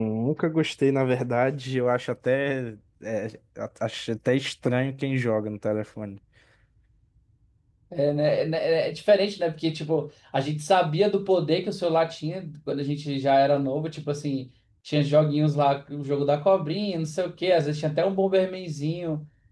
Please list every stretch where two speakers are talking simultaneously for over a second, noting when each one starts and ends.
none

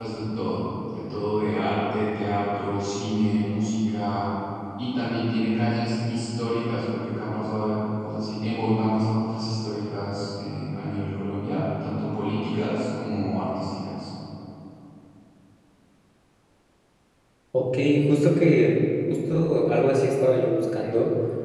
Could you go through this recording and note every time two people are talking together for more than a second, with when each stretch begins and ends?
none

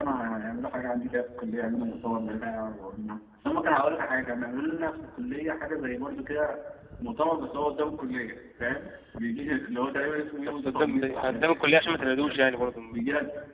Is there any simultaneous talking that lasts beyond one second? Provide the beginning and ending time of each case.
10.5-12.4

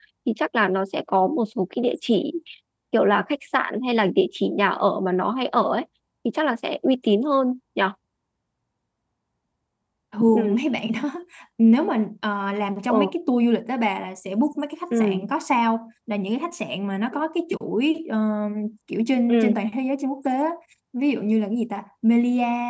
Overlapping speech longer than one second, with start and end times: none

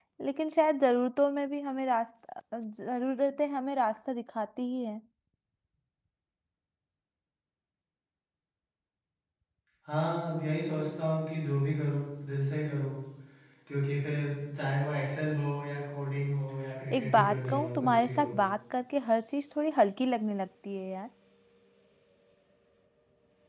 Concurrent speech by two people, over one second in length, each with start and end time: 16.9-18.3

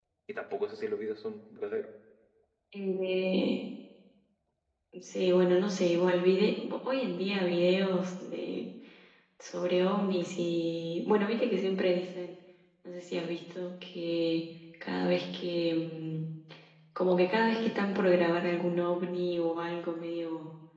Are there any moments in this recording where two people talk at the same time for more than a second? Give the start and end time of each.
none

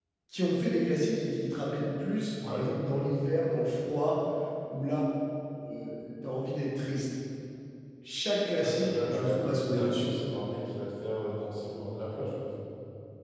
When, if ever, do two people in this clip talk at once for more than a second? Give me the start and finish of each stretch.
8.6-10.1

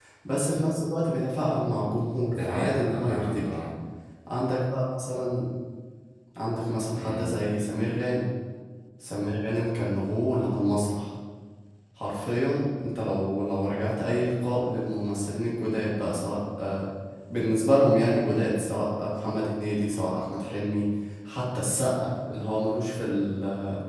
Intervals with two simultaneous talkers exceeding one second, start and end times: 2.3-3.5

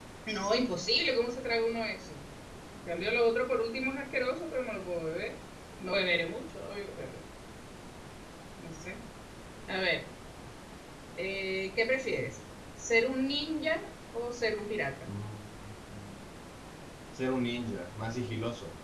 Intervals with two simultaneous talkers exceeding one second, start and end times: none

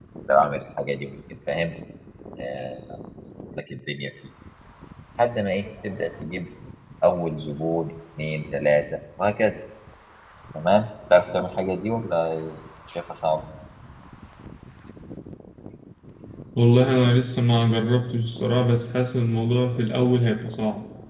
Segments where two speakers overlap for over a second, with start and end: none

